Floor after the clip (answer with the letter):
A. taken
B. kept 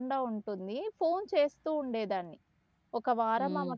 B